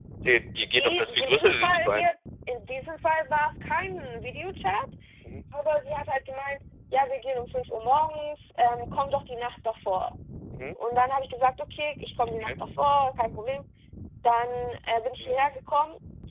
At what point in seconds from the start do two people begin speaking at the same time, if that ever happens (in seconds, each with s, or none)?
0.6 s